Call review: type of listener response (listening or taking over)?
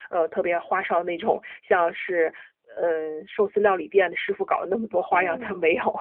taking over